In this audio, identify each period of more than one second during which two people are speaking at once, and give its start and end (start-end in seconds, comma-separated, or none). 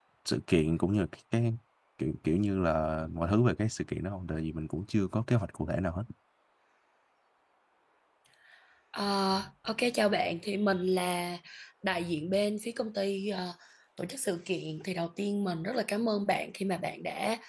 none